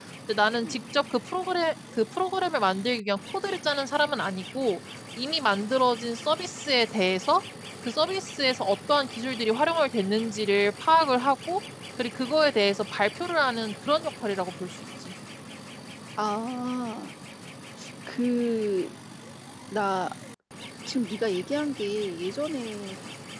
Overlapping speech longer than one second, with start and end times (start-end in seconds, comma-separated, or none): none